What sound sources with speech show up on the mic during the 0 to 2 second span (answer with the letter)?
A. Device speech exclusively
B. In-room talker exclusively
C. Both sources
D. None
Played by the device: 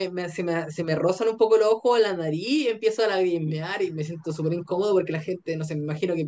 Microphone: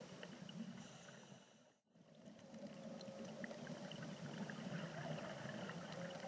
D